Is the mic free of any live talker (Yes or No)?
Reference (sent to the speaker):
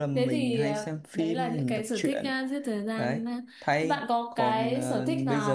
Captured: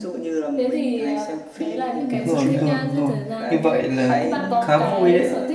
No